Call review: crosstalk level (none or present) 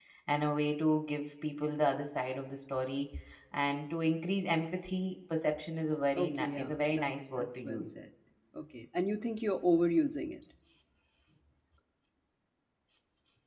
present